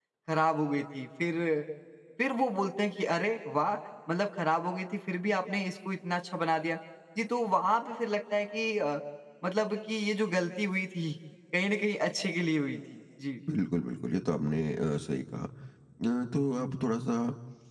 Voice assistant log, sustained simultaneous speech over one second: none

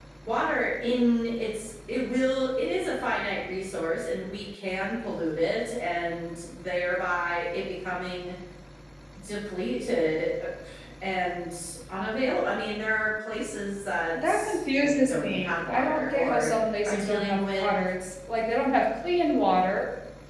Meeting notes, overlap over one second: present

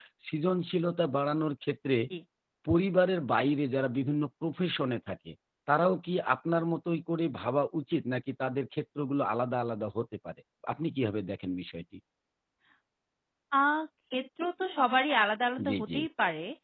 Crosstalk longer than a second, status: none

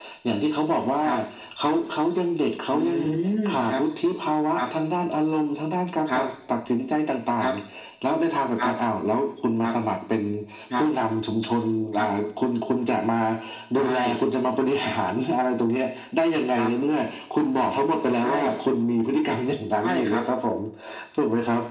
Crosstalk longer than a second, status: none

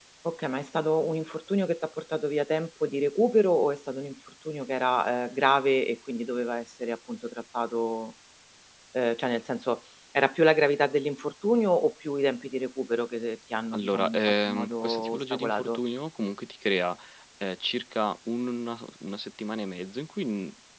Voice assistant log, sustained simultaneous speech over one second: present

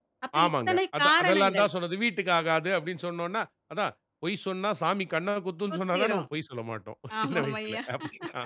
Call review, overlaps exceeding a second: present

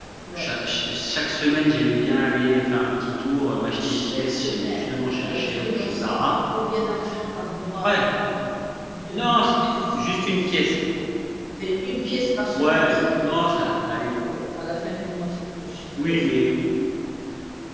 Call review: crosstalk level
present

